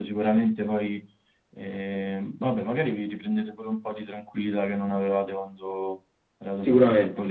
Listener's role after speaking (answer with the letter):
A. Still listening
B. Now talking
B